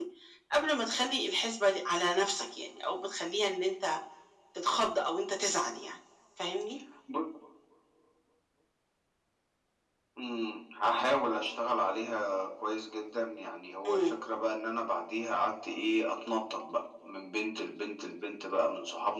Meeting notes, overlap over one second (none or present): none